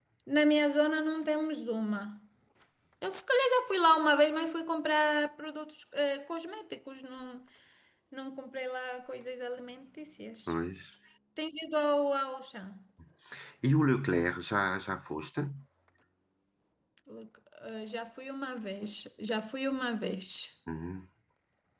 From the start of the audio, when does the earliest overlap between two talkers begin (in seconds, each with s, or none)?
none